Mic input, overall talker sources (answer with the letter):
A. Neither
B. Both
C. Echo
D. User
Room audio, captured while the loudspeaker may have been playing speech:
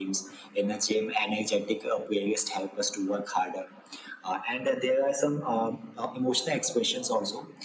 C